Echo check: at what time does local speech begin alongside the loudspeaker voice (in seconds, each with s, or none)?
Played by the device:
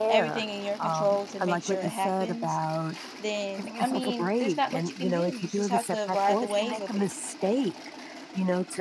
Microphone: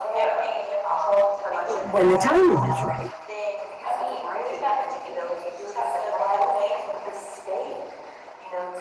1.7 s